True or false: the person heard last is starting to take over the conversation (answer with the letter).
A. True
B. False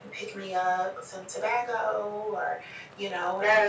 B